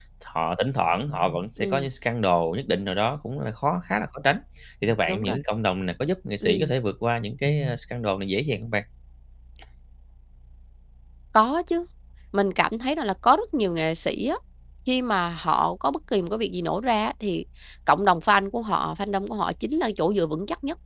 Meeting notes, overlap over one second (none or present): none